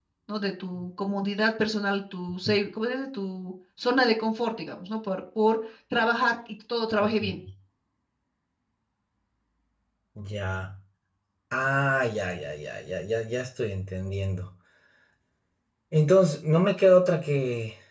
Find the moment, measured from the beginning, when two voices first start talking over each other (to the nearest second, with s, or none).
none